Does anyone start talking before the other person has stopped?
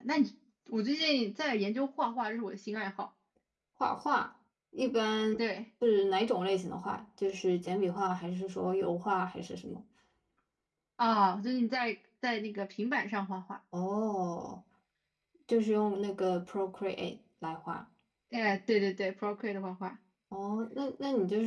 No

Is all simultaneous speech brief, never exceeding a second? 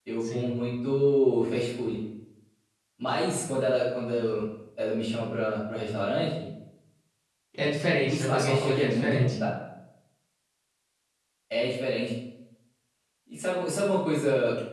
No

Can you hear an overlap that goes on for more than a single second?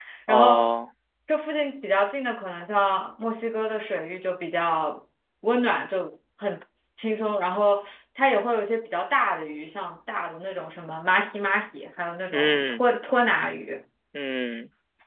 No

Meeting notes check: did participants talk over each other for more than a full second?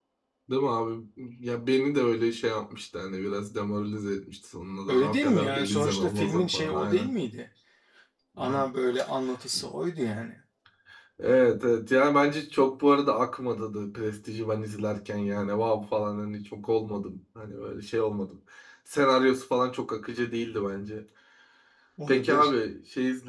Yes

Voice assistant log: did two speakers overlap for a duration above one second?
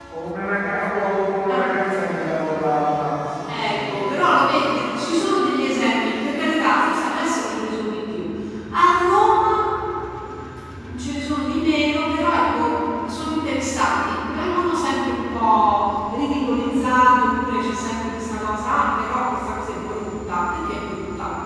Yes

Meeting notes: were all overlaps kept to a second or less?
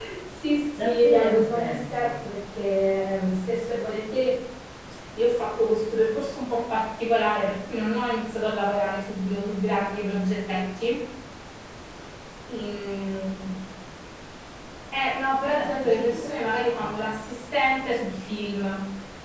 No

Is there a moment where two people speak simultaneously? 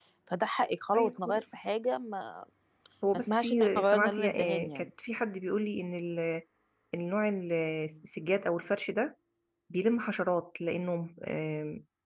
Yes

